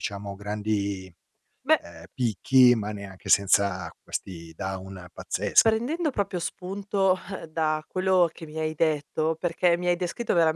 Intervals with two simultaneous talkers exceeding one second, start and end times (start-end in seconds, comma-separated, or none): none